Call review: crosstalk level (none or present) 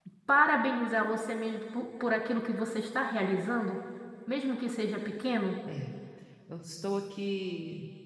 none